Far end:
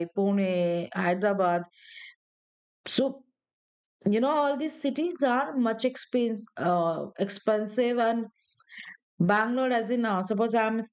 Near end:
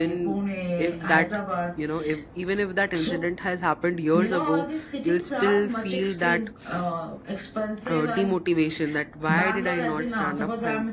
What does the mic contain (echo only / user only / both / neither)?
both